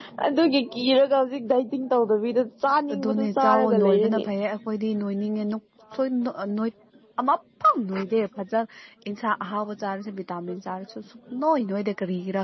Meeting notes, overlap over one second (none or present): present